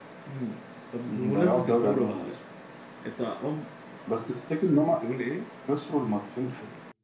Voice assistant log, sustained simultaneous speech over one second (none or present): present